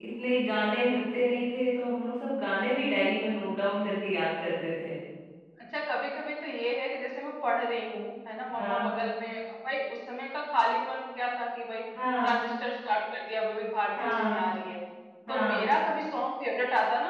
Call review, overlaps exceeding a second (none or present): none